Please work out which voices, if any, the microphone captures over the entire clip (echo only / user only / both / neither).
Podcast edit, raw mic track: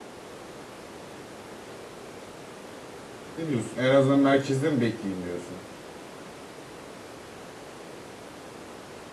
user only